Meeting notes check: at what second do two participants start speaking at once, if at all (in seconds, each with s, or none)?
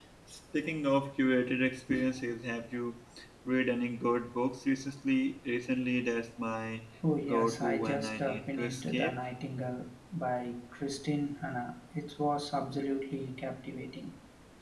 7.3 s